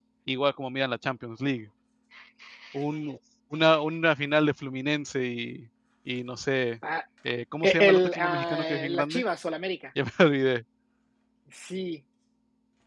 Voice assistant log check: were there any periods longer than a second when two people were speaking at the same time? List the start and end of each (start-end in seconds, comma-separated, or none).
7.7-9.2